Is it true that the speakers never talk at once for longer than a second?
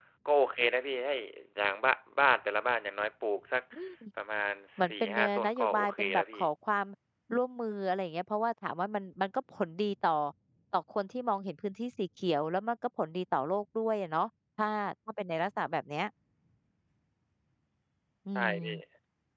No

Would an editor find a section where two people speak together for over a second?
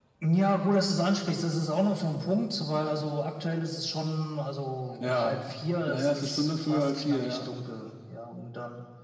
Yes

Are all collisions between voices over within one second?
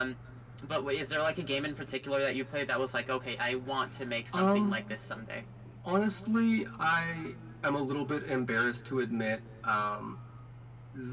Yes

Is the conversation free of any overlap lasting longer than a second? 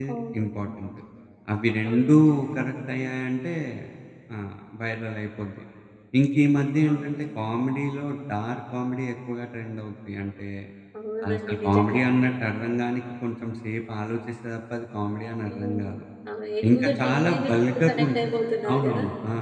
No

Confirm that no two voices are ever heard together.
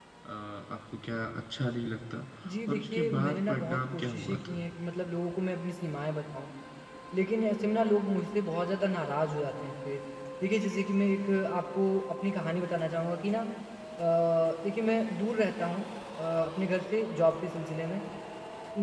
No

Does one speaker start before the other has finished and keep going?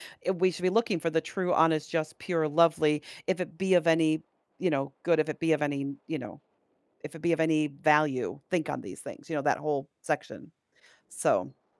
No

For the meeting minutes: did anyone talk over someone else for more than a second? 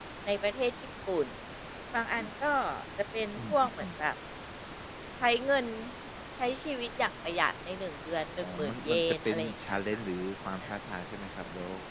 Yes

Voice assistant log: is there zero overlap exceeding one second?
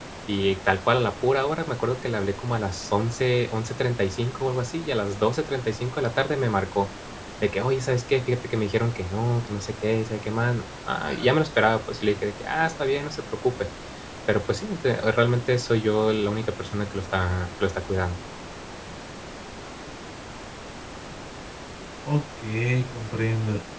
Yes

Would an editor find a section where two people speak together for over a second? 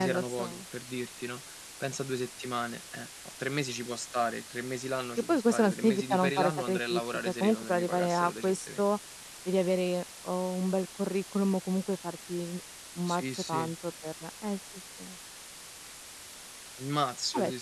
Yes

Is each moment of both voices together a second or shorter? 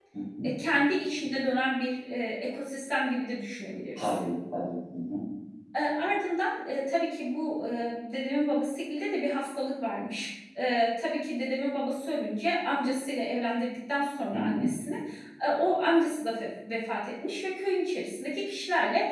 Yes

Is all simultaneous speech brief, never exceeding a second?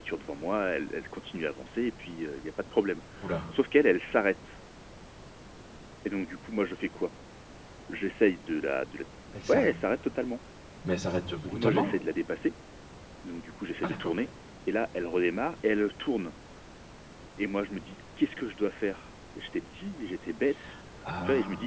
Yes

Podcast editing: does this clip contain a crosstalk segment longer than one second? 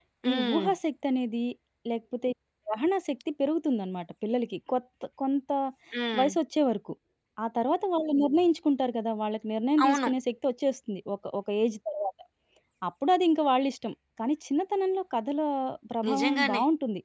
No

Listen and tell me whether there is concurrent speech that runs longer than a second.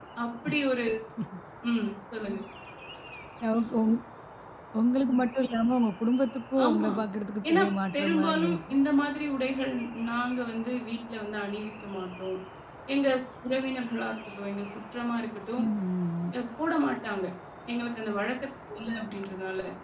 Yes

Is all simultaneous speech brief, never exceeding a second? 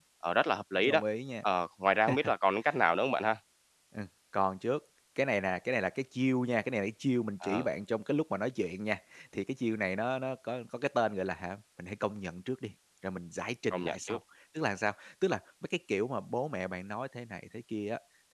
Yes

